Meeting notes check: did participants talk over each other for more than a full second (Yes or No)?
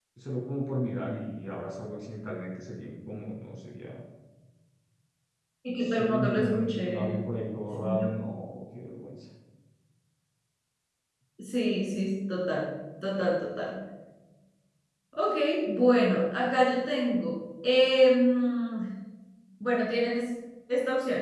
Yes